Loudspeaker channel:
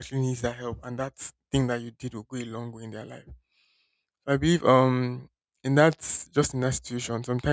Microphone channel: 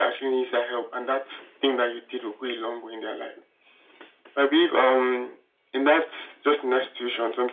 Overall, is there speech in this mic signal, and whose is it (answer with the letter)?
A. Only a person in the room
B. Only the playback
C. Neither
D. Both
B